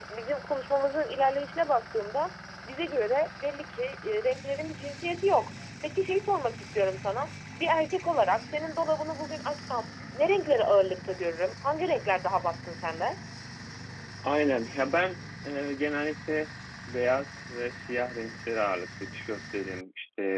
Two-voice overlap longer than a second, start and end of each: none

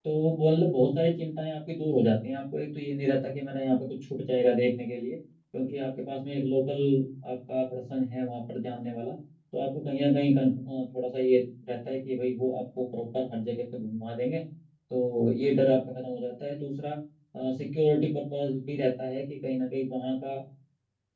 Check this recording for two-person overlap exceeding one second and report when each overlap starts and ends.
none

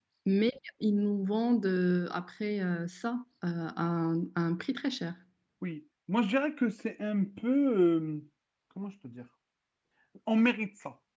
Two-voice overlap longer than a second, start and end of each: none

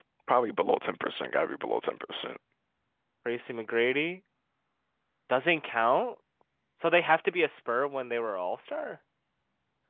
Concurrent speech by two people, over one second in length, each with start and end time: none

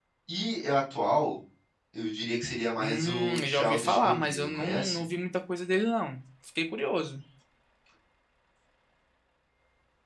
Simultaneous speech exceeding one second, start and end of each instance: 2.8-5.0

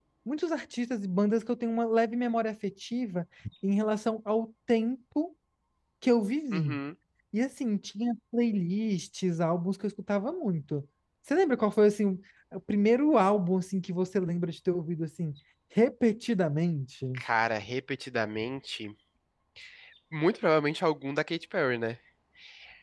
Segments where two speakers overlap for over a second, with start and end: none

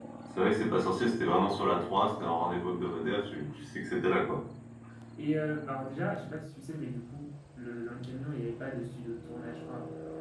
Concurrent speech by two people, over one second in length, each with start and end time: none

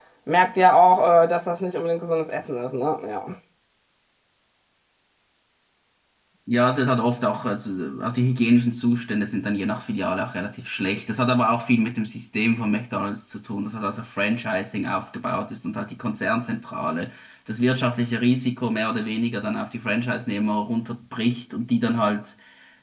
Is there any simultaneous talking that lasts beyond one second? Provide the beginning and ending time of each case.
none

